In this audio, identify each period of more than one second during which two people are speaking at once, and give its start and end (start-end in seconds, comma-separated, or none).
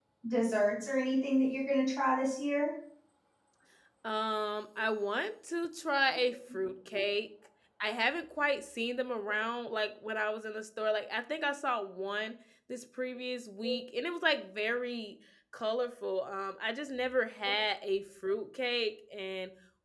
none